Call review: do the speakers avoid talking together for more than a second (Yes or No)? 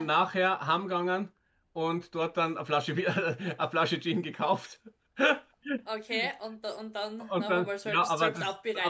No